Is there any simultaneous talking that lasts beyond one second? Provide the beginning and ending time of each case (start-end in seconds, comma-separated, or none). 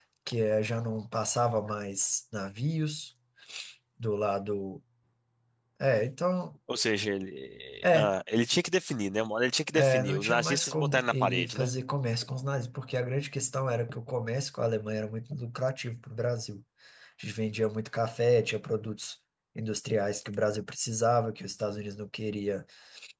9.7-11.7